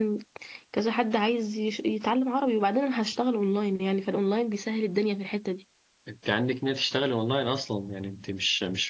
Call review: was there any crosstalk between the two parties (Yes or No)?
No